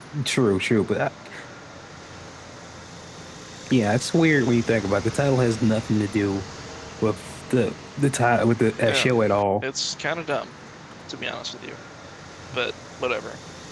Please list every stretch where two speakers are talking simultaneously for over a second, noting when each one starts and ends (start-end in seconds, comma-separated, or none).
none